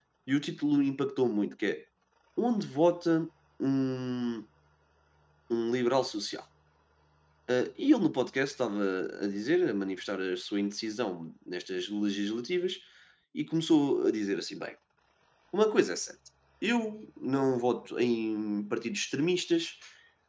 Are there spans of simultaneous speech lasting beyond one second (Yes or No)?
No